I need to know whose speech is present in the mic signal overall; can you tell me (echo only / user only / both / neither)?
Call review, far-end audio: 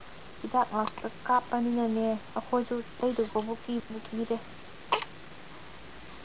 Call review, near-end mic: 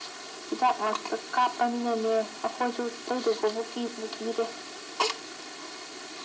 echo only